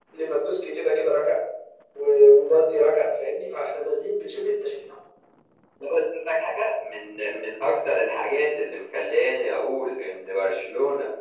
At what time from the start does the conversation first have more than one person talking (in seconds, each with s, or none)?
none